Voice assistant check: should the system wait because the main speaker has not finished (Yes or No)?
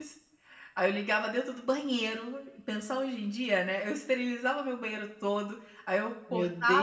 Yes